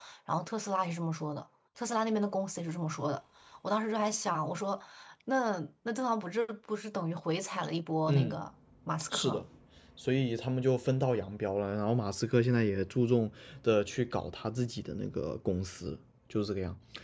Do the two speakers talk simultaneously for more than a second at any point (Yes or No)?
No